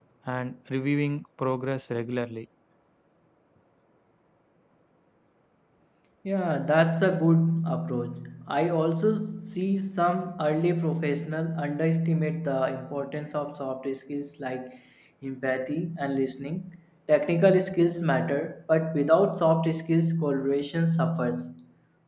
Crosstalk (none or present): none